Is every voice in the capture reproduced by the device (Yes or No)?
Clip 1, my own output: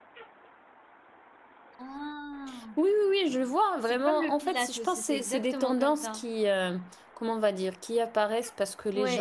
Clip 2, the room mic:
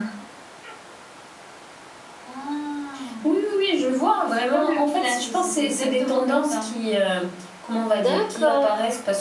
No